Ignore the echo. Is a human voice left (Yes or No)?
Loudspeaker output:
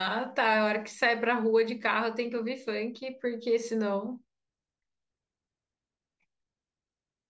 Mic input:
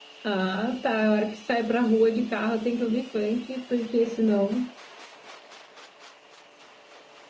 No